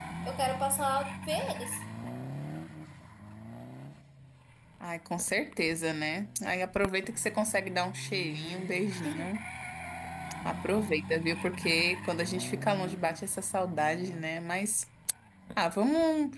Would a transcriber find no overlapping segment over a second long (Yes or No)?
Yes